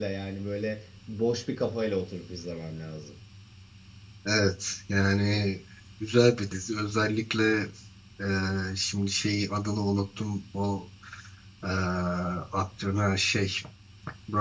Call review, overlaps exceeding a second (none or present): none